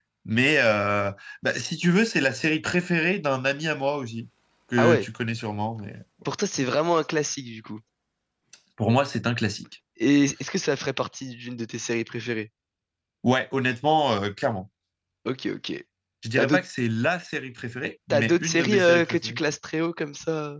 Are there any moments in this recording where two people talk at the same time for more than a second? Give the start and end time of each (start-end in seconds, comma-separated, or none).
18.1-19.4